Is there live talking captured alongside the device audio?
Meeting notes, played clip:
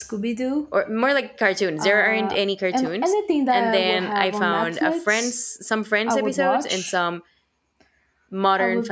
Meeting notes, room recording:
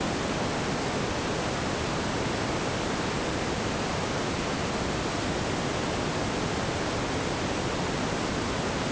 No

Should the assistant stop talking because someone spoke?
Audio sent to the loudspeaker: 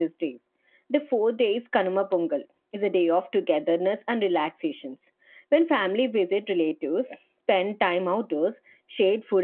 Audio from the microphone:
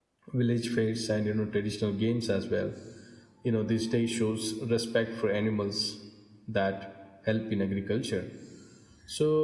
Yes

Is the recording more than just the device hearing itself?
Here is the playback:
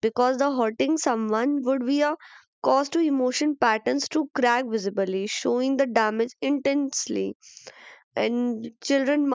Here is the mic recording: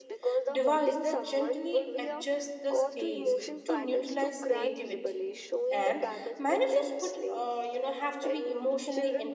Yes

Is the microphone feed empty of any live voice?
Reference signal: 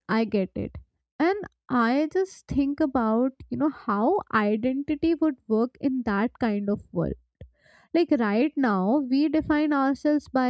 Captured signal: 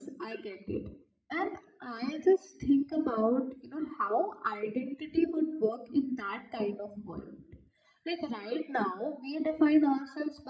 Yes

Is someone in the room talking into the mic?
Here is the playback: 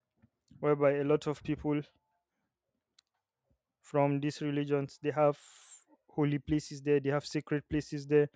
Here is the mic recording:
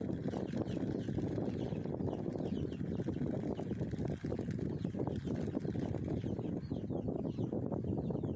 No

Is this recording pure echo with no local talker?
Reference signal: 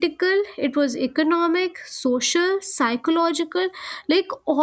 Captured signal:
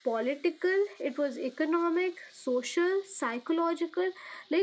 Yes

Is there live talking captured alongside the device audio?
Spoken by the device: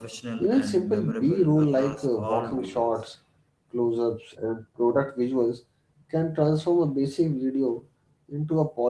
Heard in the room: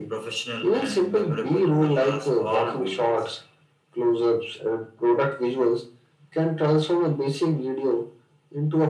No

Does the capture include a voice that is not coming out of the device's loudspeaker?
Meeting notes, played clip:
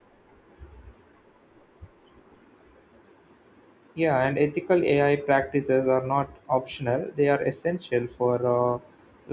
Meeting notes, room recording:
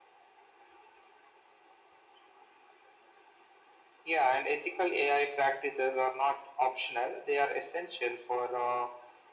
No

